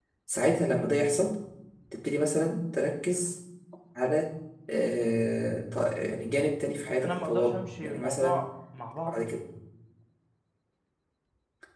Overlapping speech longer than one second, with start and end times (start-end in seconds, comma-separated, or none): 6.8-8.4